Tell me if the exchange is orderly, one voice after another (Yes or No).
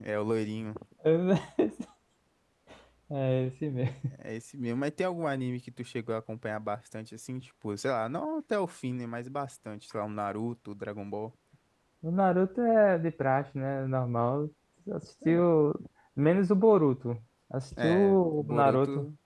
No